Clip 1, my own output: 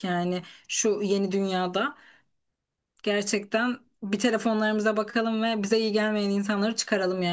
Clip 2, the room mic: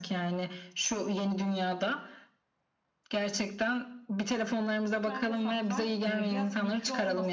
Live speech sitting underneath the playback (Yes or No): Yes